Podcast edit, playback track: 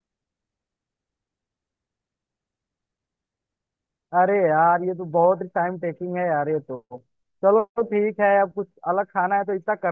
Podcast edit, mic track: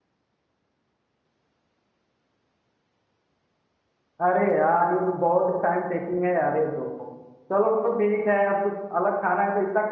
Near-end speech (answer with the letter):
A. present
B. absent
B